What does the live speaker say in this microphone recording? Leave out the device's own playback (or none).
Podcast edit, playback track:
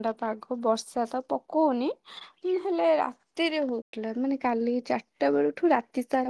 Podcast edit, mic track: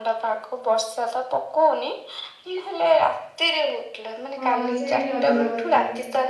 ହଁ ସେଇଆ ଟିକେ ଅଧିକ ଭଲ ଲାଗେ।